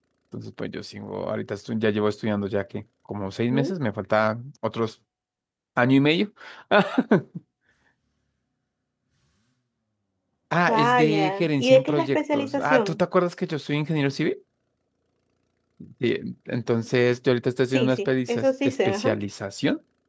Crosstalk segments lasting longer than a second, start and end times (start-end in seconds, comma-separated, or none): 10.7-13.0, 17.7-19.1